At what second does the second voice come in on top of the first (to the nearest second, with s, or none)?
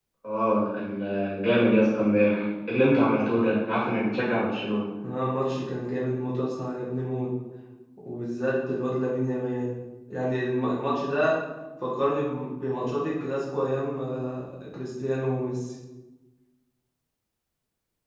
none